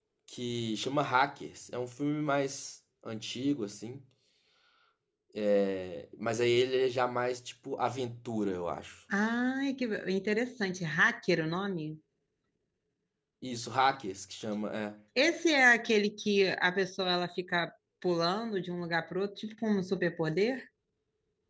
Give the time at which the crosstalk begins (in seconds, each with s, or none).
none